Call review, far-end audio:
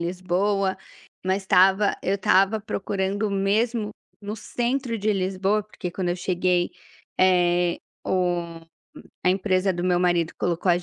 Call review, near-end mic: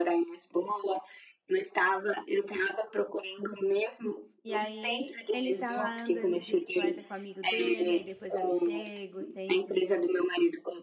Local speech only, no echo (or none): E aí ele tá lá andando de bicicleta com o amigo dele, aí depois eu chego, tem